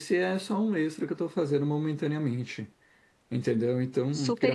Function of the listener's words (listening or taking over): listening